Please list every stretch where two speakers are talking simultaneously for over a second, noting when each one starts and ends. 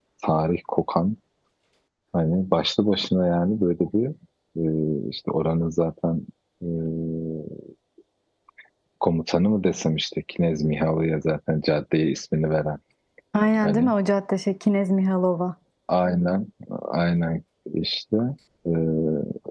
none

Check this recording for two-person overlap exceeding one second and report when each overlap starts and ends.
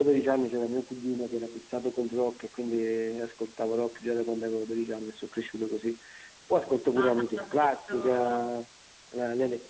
7.0-8.5

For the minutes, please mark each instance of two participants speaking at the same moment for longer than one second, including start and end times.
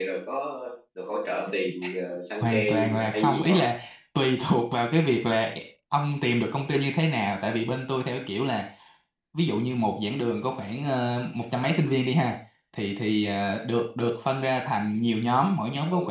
2.4-3.6

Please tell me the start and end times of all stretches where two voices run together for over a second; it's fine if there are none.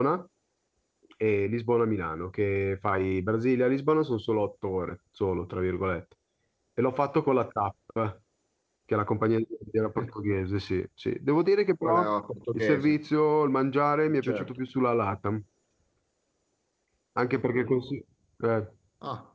none

